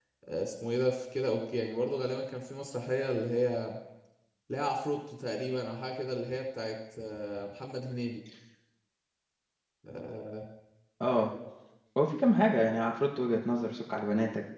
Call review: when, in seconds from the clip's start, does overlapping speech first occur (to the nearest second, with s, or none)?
none